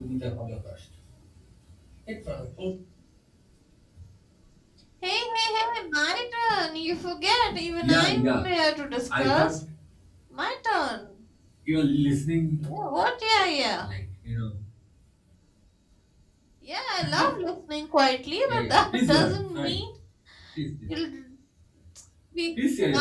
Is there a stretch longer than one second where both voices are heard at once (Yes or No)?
Yes